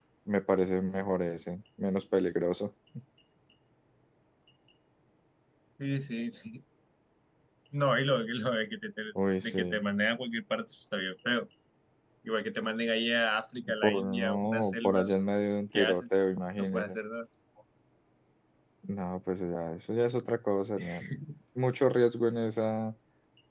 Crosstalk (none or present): present